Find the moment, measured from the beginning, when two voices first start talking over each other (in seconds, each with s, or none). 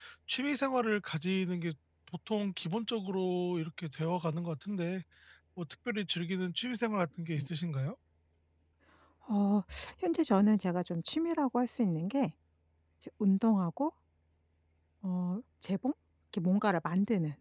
none